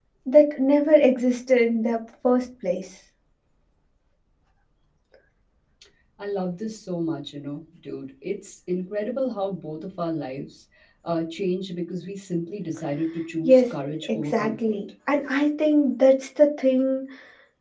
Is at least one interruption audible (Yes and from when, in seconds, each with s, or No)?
Yes, from 13.4 s